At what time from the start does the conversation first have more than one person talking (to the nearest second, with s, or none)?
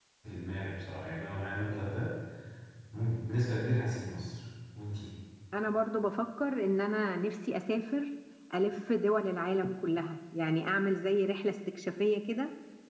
none